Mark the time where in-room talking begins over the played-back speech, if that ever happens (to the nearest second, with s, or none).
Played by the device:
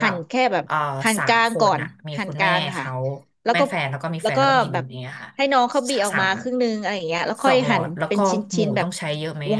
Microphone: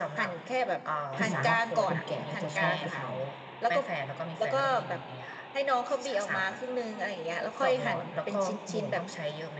1 s